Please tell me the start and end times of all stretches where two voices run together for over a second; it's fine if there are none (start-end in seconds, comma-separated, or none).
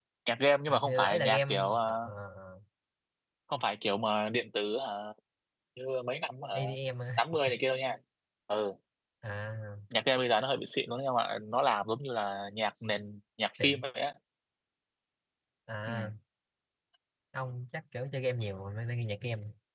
0.7-2.1